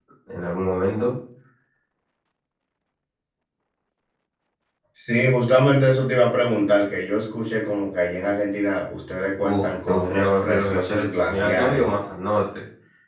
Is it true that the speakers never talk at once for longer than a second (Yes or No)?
No